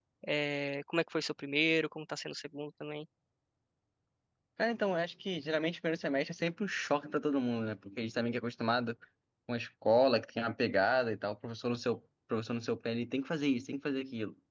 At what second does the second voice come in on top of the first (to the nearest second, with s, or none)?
none